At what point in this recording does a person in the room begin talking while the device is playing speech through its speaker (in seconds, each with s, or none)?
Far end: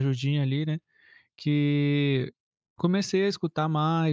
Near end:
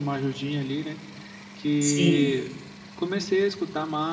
1.8 s